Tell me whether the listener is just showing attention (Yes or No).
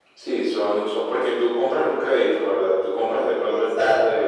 No